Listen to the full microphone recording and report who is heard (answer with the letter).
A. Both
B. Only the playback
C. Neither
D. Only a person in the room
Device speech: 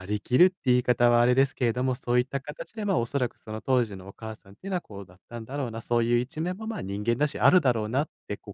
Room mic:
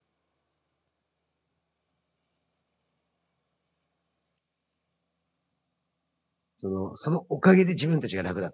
D